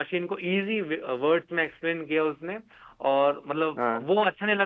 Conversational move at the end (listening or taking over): listening